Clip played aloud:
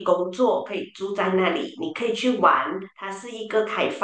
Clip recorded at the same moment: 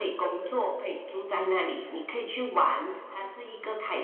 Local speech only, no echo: none

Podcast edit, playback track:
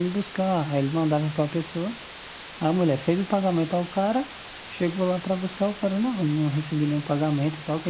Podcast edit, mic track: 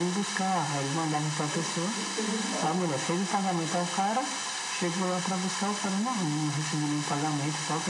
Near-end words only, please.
não, não pergunto mais.

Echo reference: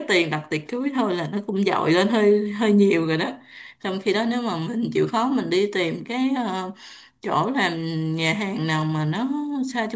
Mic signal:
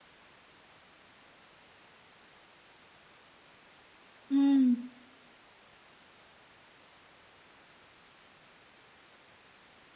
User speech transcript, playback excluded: ừ

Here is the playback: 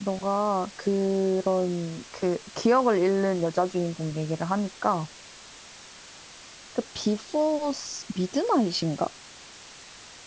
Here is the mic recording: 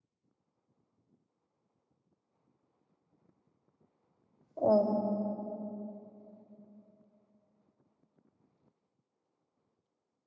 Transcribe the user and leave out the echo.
어,

